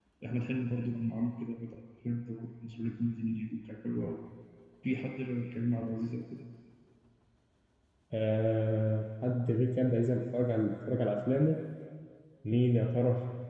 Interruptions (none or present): none